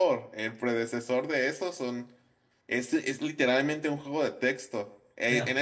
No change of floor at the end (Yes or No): Yes